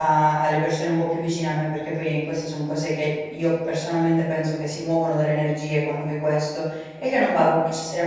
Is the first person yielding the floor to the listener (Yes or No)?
No